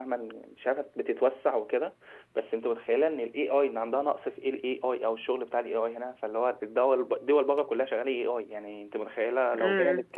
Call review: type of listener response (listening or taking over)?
listening